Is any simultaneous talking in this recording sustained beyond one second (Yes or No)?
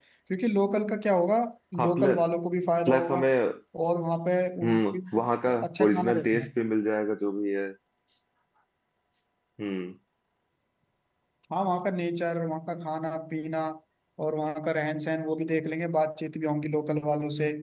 Yes